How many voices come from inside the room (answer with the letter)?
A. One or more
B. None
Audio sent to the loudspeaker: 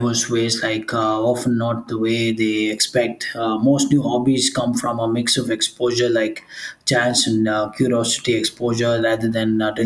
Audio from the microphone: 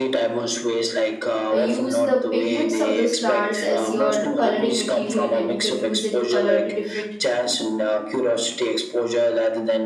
A